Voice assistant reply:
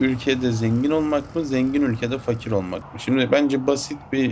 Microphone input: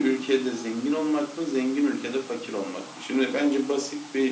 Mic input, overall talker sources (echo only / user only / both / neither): echo only